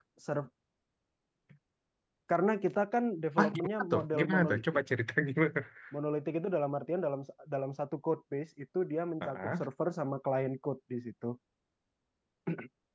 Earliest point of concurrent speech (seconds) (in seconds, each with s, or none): 3.4 s